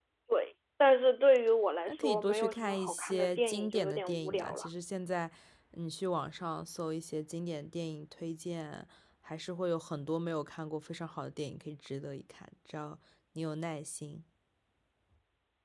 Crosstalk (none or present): present